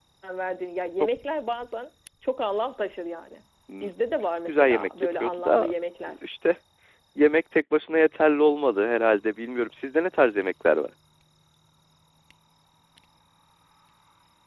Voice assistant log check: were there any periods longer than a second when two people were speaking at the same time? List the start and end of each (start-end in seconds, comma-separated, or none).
4.5-5.7